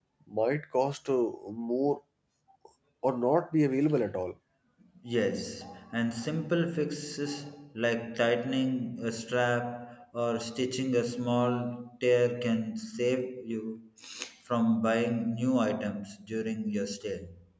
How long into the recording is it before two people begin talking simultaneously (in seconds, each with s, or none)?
none